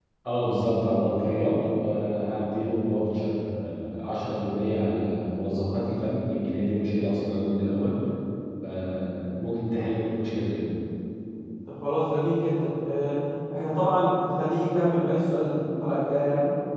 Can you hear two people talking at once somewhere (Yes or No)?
No